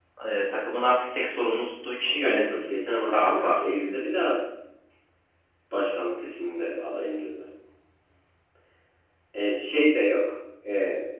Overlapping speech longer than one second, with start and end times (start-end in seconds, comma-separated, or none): none